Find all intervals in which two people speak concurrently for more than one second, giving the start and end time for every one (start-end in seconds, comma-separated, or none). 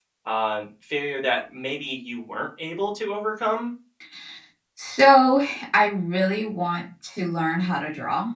none